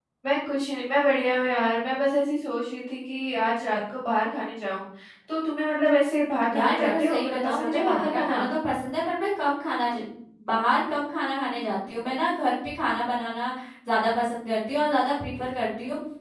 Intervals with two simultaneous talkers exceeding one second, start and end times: 6.5-8.4

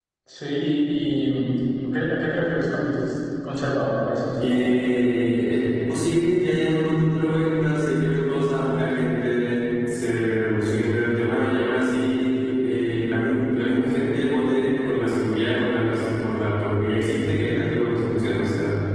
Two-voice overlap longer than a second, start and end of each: none

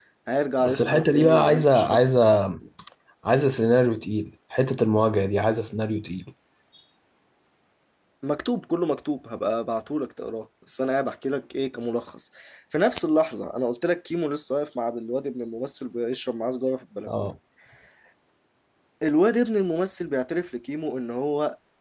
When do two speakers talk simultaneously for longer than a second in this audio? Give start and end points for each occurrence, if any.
0.6-2.0

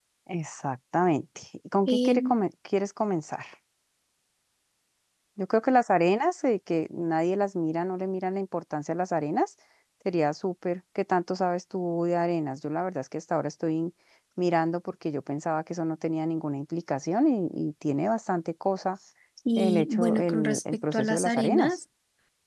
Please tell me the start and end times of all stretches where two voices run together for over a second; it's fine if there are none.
19.6-21.8

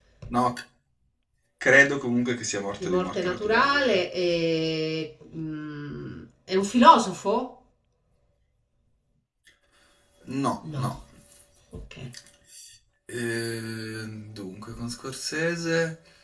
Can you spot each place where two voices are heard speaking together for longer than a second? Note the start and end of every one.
2.8-4.0

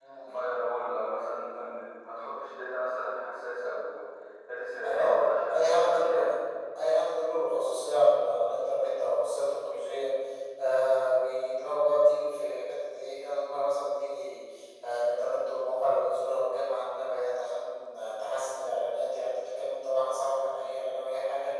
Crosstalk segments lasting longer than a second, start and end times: 4.8-6.3

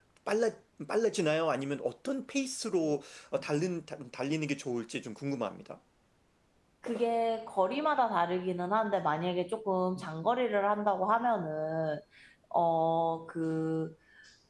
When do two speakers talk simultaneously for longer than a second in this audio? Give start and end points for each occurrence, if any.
none

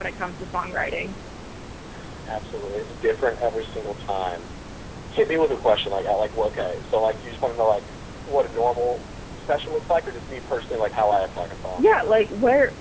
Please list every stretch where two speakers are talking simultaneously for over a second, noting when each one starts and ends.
none

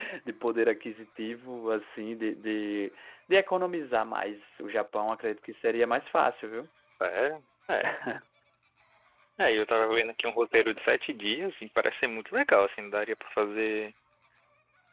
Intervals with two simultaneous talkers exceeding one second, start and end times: none

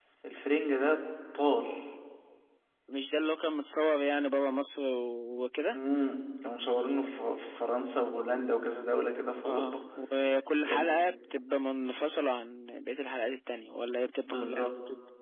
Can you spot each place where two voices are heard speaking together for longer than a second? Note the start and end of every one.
none

